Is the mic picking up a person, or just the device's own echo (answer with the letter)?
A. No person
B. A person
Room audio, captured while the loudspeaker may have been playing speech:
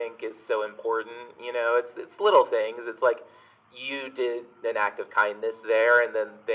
A